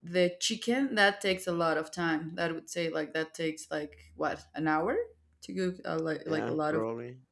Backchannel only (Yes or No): No